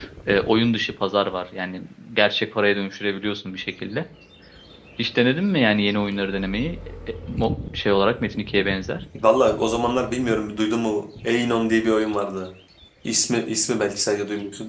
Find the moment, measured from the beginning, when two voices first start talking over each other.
none

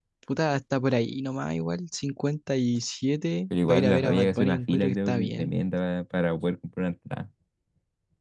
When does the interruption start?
4 s

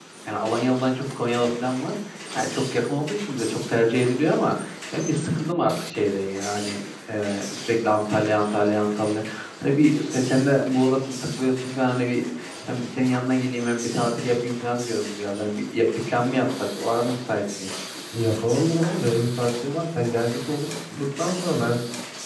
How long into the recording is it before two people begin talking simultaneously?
none

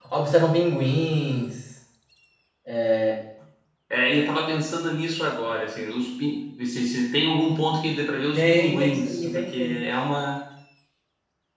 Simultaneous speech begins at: 8 s

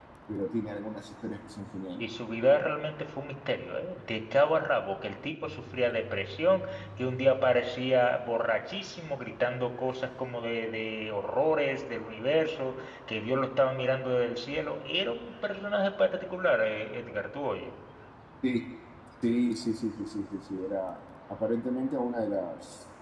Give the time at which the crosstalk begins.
none

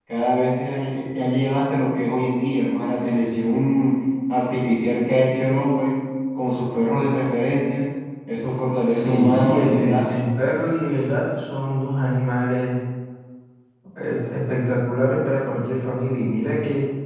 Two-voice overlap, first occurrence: 9 s

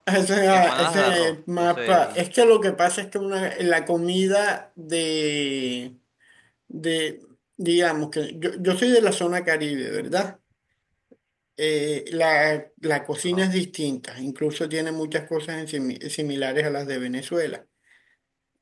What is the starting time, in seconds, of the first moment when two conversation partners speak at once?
1 s

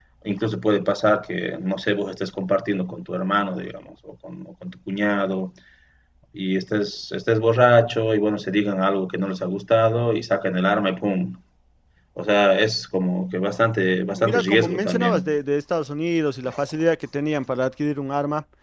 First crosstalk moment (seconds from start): 14 s

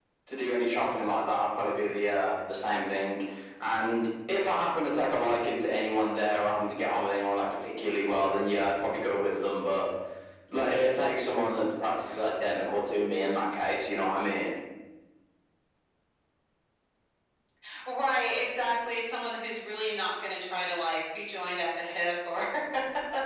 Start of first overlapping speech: none

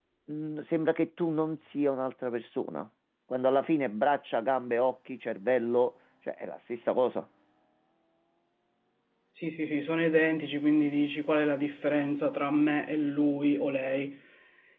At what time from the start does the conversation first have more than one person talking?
none

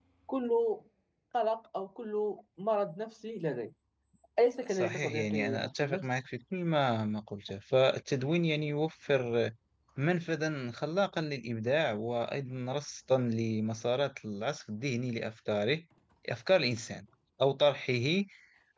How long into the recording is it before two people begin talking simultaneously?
5 s

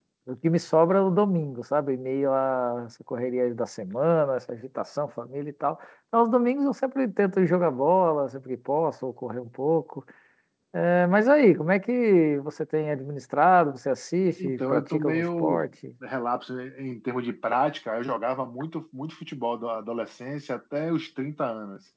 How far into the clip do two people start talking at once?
14 s

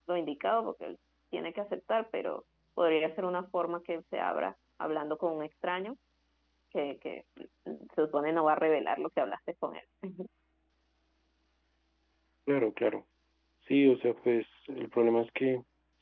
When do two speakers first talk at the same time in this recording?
none

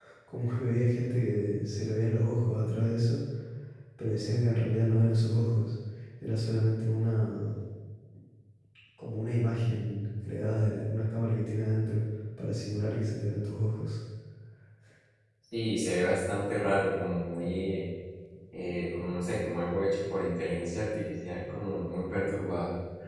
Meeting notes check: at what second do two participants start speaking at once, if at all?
none

